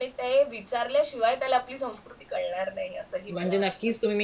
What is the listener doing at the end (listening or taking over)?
taking over